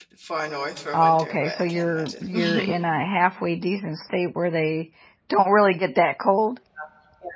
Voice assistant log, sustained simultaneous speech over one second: present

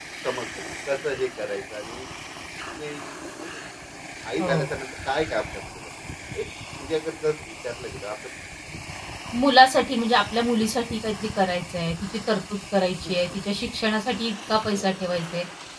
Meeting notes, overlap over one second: none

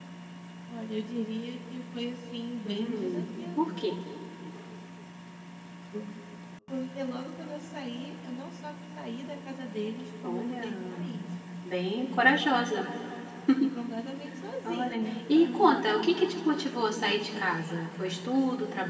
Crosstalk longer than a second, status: present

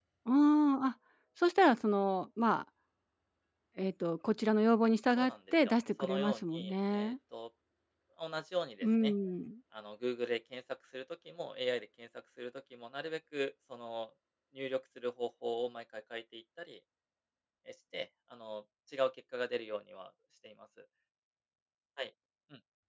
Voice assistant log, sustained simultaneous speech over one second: present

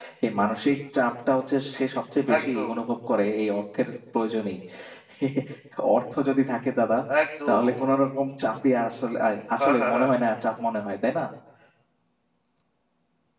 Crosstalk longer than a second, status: none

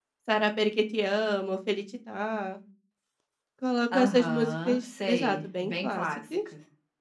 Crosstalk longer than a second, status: present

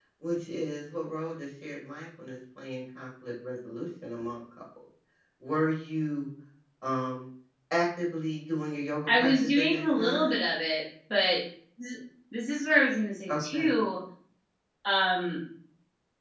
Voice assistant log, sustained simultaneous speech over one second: present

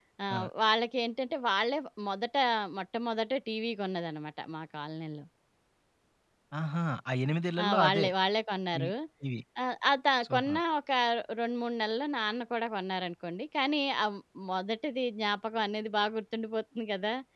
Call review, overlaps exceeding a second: none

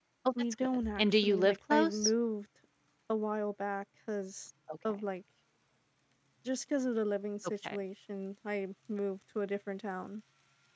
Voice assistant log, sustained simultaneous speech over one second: present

